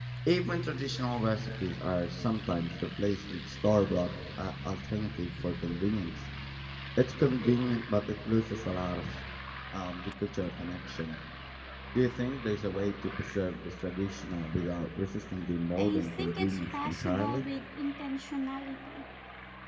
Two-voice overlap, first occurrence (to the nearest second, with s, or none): 16 s